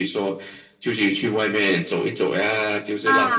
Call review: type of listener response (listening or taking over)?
taking over